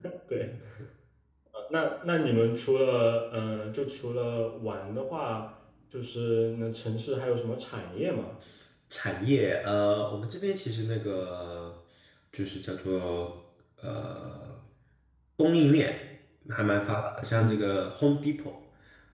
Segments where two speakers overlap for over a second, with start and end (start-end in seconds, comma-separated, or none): none